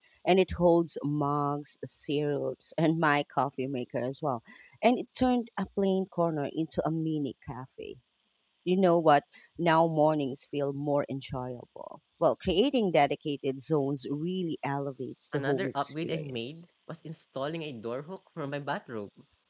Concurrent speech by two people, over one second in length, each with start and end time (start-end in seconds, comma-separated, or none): 15.3-16.6